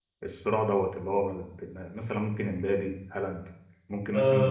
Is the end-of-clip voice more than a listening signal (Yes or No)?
Yes